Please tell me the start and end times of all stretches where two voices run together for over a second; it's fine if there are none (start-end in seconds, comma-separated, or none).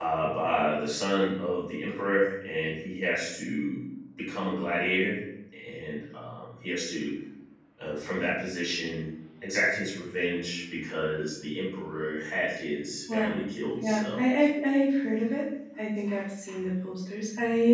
none